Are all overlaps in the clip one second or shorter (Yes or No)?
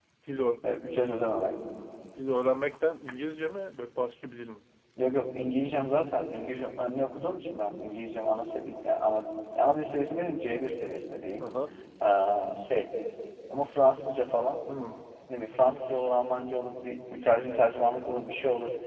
Yes